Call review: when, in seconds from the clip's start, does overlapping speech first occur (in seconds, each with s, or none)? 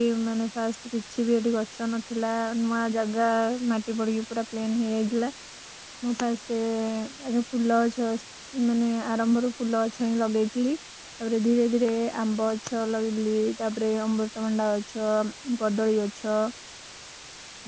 none